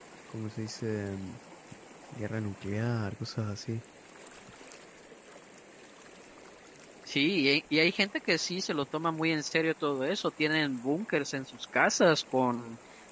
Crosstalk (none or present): none